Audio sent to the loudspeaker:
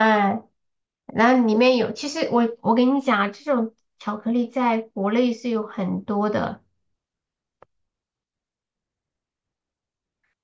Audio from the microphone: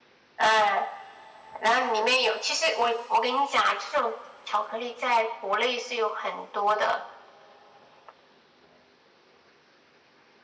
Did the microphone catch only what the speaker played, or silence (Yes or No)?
Yes